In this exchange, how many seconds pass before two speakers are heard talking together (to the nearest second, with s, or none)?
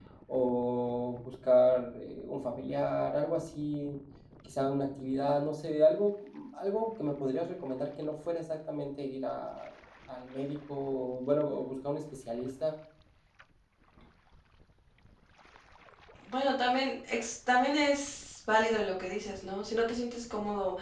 none